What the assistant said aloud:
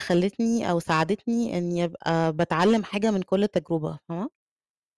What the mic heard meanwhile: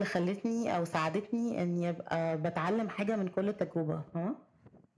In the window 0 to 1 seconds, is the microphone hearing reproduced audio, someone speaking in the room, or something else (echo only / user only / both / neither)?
echo only